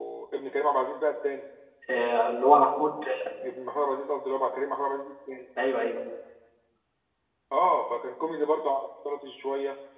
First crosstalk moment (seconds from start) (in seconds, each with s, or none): none